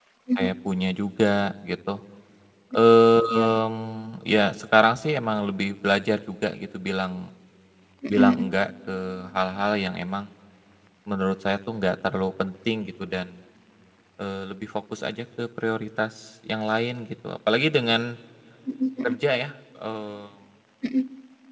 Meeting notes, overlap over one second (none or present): none